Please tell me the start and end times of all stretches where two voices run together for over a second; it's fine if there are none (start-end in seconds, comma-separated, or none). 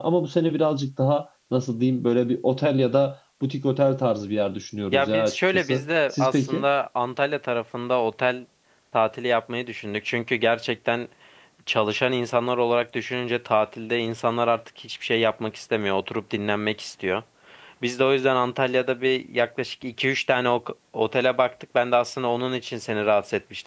4.9-6.6